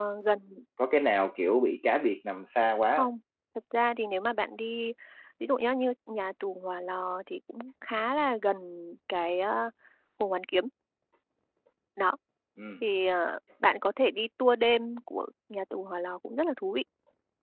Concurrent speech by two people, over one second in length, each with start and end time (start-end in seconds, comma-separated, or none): none